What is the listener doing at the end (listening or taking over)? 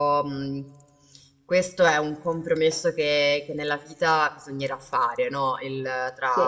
listening